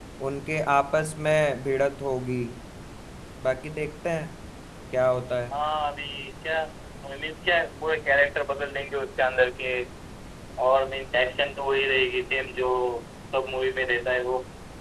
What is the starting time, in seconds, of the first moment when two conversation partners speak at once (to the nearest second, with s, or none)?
none